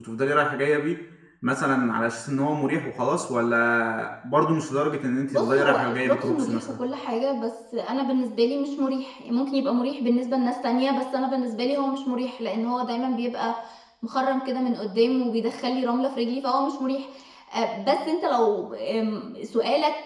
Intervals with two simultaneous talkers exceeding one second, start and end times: 5.3-6.6

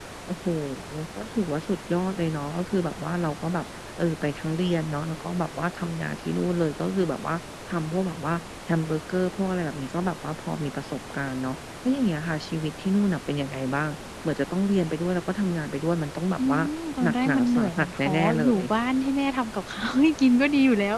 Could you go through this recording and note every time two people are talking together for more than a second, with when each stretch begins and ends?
17.0-18.6

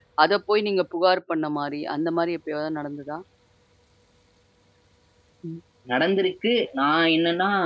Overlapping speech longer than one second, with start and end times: none

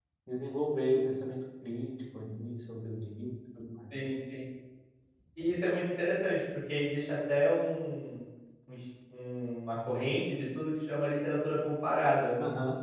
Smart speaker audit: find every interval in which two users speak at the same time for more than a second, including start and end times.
none

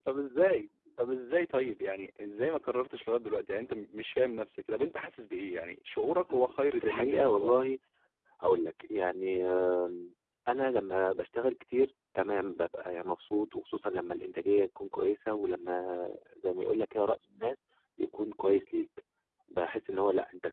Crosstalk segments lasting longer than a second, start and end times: 6.3-7.6

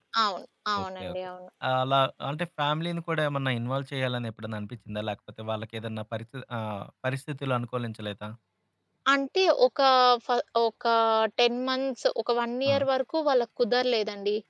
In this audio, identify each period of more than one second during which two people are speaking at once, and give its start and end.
none

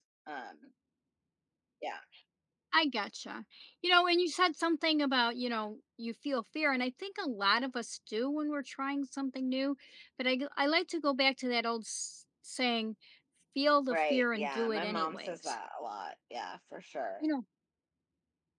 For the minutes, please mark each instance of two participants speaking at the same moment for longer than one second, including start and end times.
13.9-15.5

